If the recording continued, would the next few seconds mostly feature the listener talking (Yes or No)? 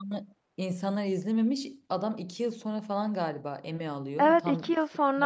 Yes